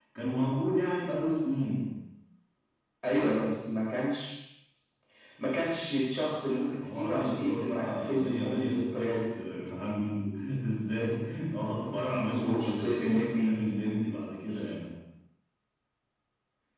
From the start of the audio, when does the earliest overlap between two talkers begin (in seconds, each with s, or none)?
6.8 s